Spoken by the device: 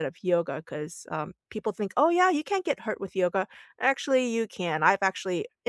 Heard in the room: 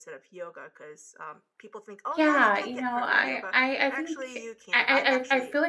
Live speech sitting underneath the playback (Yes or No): No